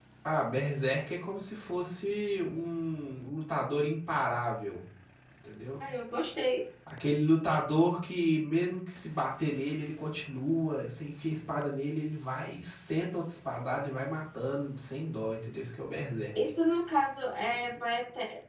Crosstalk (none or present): none